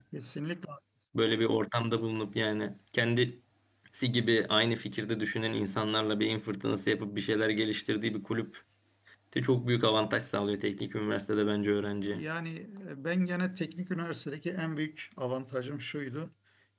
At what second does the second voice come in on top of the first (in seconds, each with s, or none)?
none